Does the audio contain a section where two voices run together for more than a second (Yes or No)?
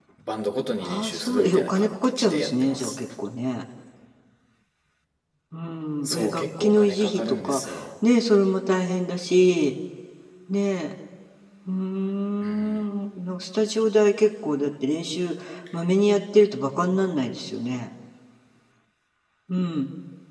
Yes